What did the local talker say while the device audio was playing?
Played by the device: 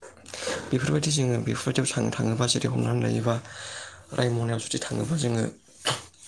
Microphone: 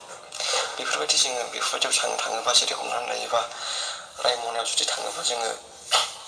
none

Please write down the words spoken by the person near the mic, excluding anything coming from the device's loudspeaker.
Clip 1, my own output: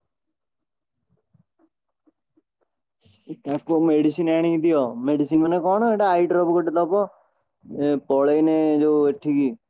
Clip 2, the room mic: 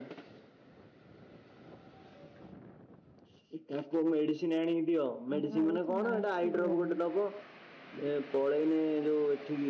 ଆମେ ଭାବୁଛୁ ମାସ୍କ ଯିବା ପାଇଁ।

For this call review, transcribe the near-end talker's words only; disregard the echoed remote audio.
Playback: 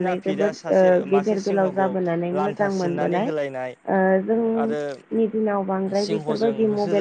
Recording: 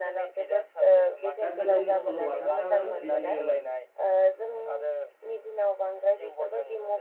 दा गोदोनि सल'बाथाफ्राबो बिदिनोमोन।

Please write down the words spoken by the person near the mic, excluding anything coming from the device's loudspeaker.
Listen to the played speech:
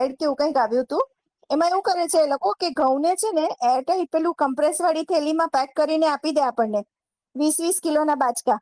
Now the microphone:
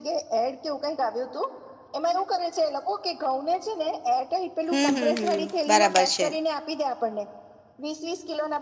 હમ હમ હમ બરાબર છે.

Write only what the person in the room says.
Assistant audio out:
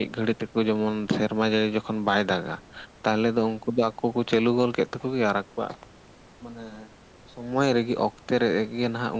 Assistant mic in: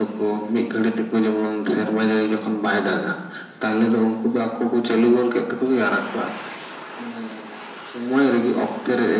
none

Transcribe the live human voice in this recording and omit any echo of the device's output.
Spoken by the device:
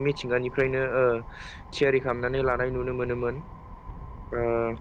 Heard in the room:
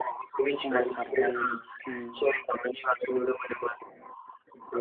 समायसारनायसिन

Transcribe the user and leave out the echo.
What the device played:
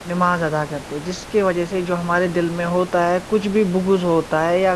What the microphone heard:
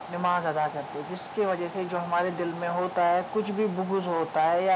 none

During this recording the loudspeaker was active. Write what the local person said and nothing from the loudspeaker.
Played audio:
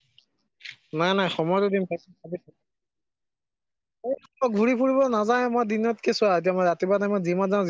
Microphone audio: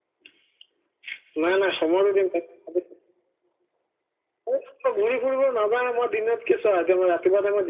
none

